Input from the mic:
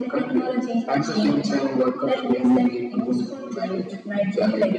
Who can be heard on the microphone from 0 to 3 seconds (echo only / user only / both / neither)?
echo only